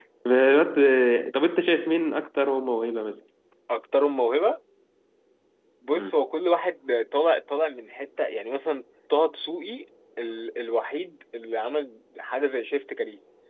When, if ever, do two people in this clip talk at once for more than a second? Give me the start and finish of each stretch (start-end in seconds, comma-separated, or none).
none